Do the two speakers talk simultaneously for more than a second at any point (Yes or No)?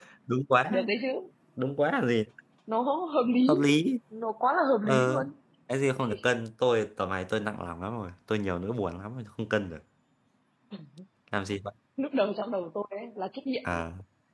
No